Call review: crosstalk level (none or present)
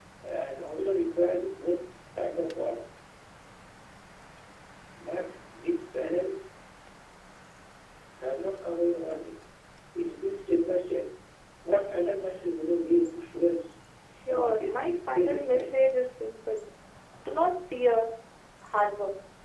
present